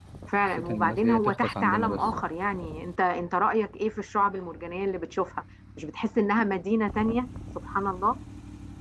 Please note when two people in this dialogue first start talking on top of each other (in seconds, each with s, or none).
0.6 s